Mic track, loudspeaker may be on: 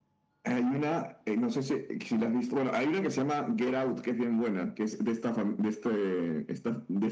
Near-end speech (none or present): none